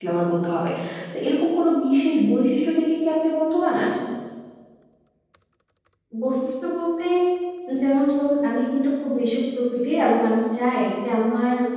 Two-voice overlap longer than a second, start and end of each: none

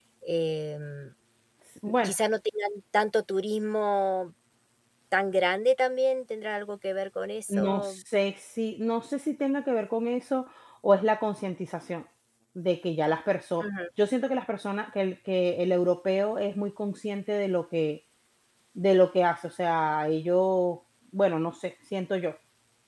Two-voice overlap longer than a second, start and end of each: none

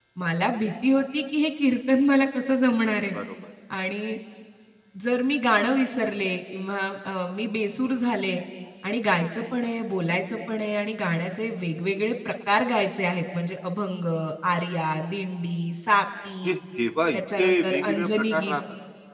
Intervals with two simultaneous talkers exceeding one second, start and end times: 17.1-18.6

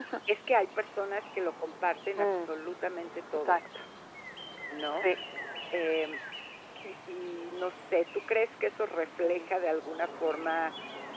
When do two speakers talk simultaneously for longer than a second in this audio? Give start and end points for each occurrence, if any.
none

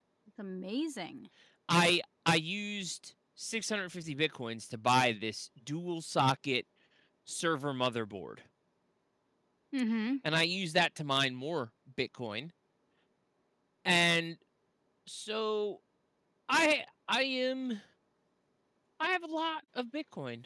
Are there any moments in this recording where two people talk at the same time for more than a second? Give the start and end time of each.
none

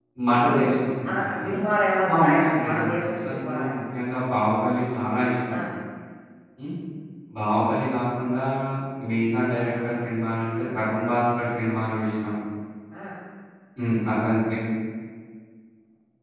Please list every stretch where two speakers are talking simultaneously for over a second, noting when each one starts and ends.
2.1-3.8

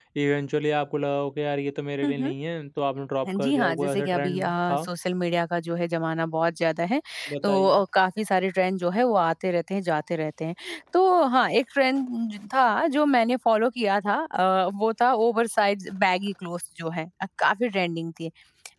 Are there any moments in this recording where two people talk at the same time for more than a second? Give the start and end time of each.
3.3-4.8

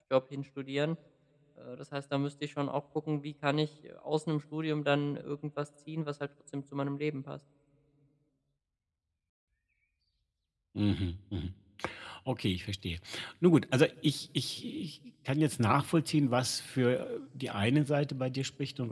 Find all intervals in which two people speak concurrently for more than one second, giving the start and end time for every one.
none

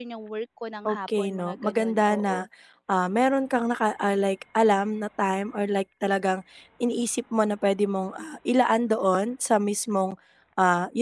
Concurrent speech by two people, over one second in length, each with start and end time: 0.8-2.4

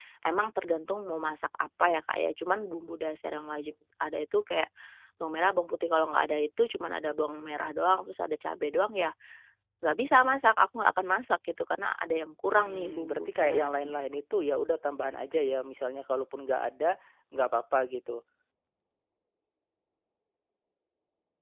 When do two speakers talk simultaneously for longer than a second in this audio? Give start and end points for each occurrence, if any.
12.5-13.9

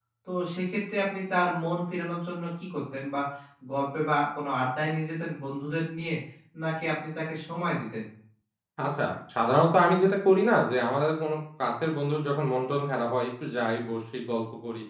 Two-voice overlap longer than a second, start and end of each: none

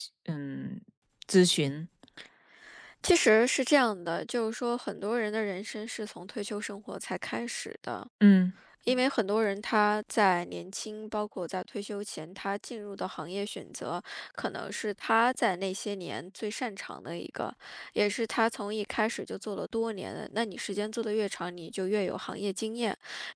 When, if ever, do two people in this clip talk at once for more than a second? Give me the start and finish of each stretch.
none

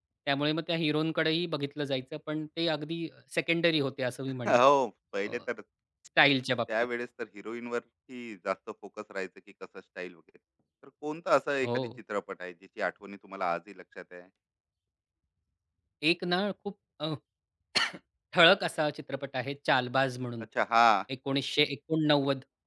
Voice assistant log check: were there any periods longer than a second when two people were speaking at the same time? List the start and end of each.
none

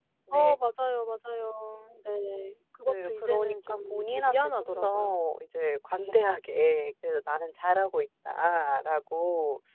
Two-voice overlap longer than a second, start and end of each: 2.9-5.2

